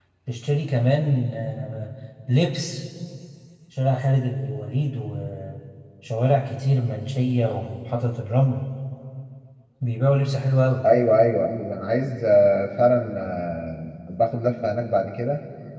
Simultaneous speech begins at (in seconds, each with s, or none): none